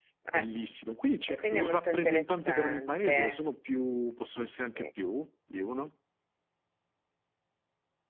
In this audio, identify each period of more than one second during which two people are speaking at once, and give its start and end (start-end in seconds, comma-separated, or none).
1.3-3.4